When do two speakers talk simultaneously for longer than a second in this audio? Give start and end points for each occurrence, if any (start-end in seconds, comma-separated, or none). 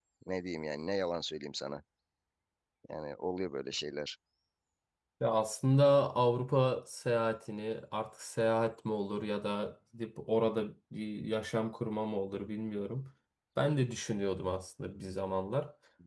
none